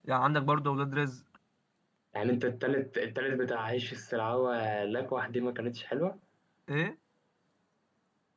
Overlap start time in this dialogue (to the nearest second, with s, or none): none